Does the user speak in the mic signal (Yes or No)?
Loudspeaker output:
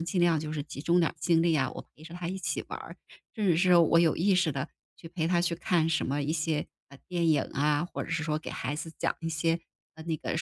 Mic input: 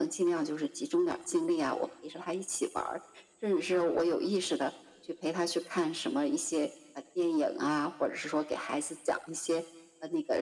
No